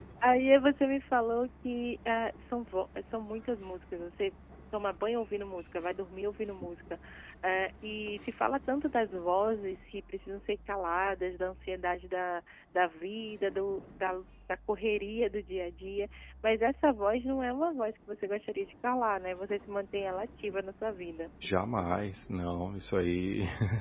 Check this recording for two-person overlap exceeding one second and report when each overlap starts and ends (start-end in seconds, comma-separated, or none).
none